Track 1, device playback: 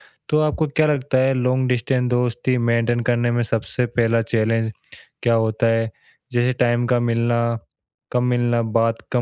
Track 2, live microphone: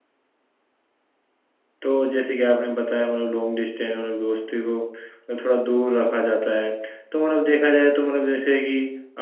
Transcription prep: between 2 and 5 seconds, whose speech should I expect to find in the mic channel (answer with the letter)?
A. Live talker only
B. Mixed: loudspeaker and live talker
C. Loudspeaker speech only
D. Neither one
A